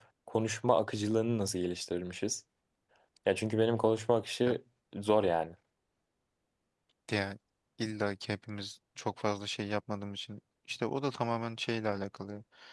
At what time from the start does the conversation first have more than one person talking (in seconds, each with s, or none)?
none